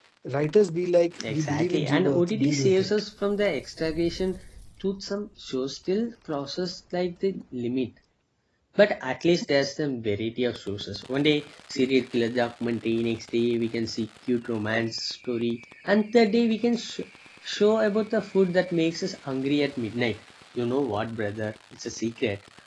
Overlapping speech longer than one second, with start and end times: 1.3-2.9

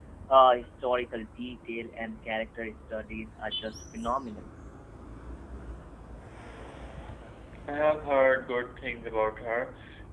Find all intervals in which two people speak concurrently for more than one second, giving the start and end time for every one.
none

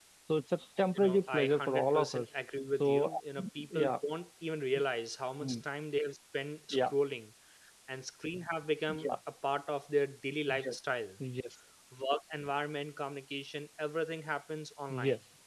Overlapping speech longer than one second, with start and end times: 1.0-2.2

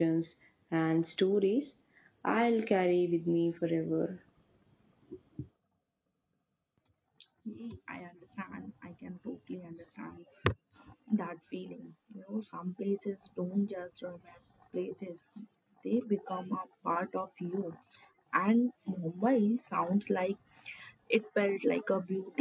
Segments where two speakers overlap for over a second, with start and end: none

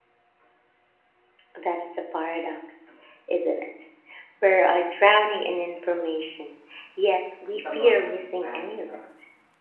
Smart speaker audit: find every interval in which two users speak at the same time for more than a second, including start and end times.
7.5-9.0

